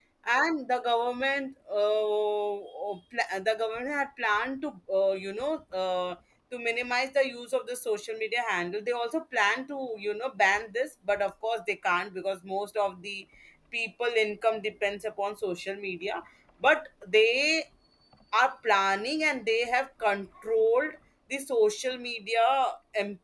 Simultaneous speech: No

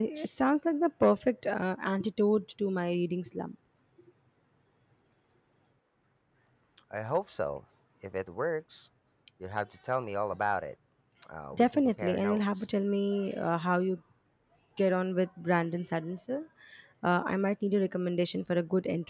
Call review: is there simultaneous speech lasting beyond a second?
Yes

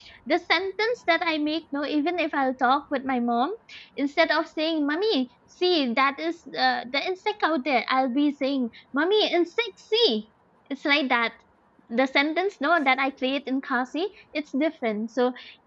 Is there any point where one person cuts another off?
No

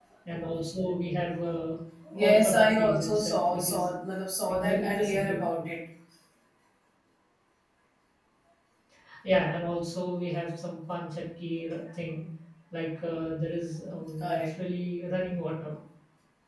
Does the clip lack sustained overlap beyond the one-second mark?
No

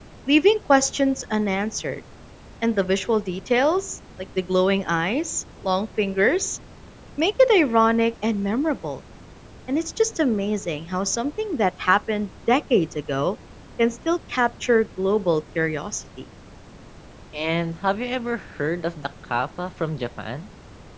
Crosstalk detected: No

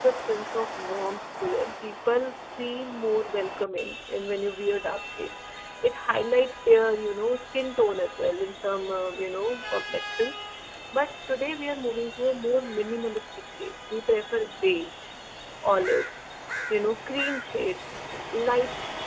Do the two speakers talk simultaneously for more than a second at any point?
No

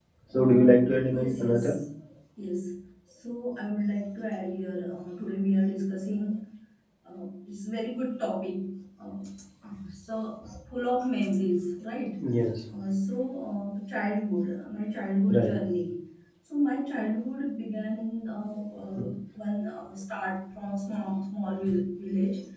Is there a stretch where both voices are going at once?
Yes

